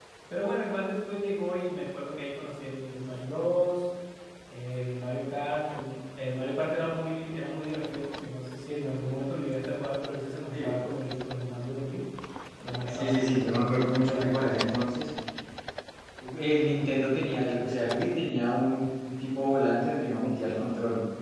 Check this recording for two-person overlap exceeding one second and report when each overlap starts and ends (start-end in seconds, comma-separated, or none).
12.8-14.4